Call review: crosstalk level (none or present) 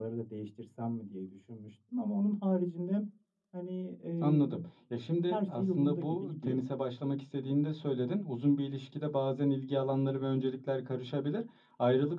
present